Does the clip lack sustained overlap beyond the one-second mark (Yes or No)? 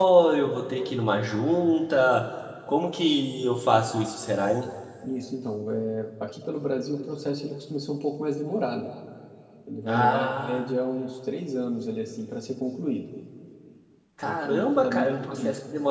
No